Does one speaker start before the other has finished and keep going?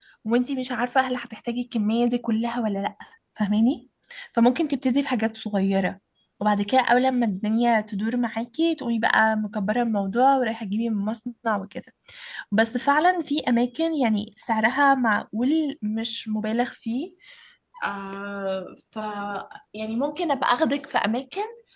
No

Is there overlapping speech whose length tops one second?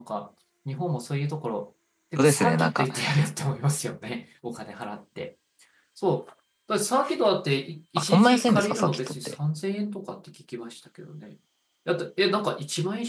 Yes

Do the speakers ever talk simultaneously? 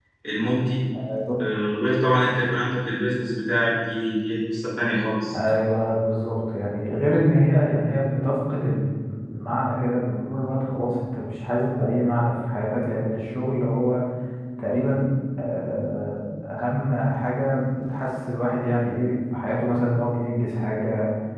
No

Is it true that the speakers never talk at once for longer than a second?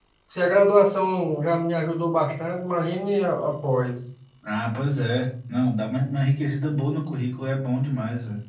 Yes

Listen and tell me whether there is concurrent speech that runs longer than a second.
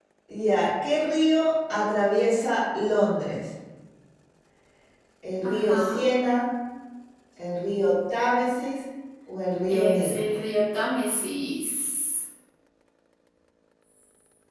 No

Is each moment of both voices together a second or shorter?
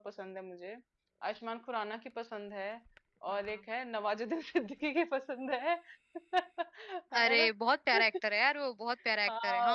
Yes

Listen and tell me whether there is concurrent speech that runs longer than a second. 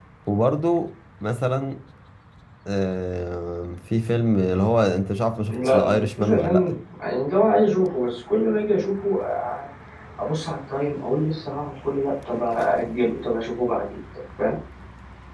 Yes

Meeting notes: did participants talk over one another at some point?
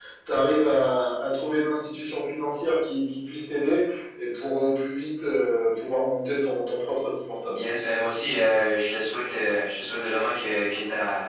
No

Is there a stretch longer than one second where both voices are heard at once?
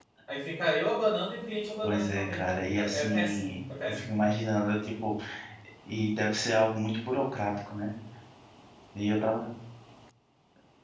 Yes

